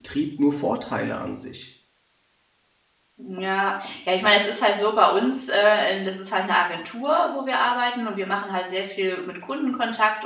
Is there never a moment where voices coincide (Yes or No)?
Yes